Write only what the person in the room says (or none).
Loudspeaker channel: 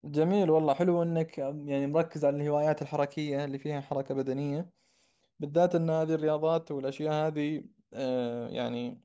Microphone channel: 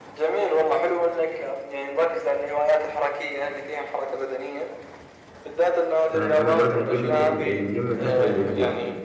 فأنا بروح الجيم ال- الجيم في آخر الأسبوع